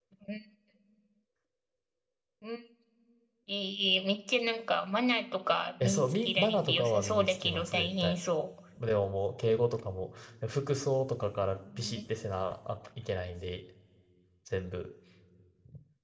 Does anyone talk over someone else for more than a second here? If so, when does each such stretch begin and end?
5.8-8.2

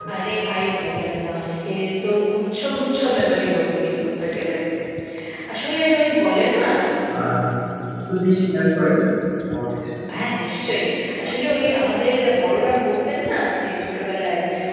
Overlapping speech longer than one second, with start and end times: none

